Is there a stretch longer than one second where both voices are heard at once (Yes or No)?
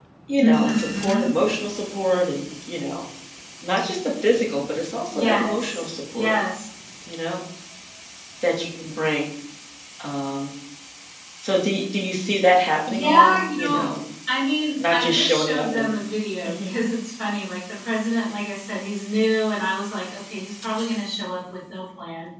Yes